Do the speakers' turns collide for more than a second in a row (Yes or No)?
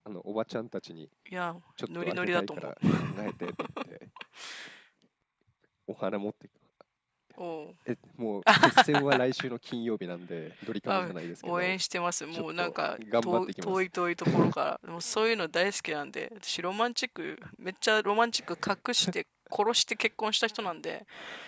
Yes